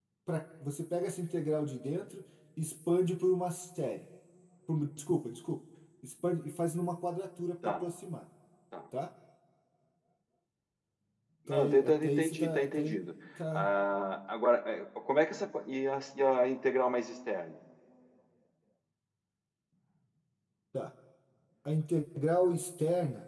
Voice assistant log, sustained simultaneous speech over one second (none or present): present